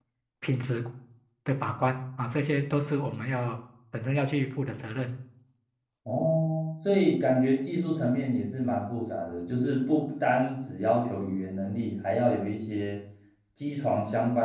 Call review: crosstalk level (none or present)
none